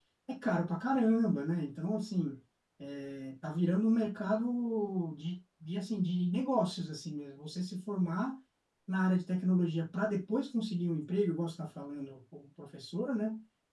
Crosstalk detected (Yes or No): No